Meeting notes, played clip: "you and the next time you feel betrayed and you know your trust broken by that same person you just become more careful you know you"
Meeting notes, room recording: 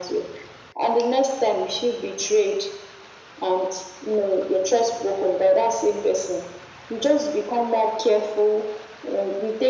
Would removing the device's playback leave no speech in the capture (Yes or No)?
Yes